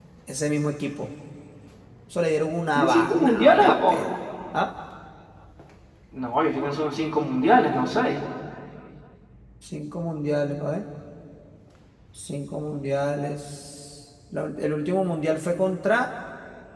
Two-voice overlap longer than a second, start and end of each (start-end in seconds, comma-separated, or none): 2.8-4.1